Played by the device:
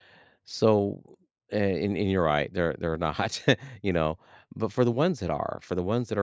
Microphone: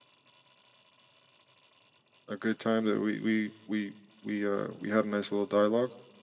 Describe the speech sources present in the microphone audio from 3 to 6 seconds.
user only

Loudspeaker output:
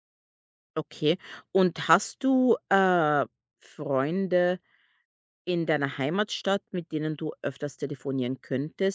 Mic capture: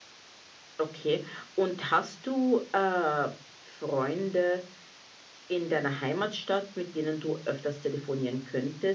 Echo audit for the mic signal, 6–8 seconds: echo only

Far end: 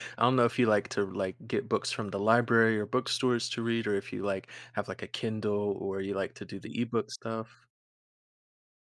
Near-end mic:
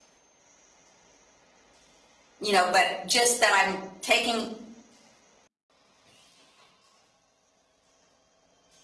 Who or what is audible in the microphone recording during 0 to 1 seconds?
neither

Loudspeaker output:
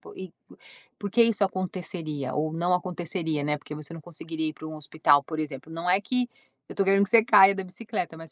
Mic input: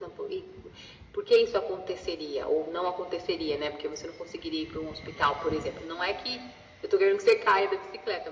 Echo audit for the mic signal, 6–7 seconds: echo only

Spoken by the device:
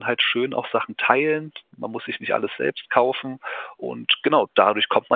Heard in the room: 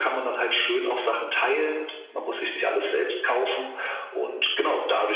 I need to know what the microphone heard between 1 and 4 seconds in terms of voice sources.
echo only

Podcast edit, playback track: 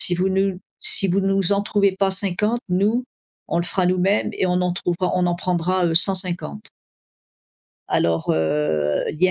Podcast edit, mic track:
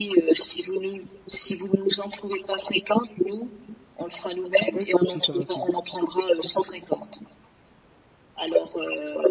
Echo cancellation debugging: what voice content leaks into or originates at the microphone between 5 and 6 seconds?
both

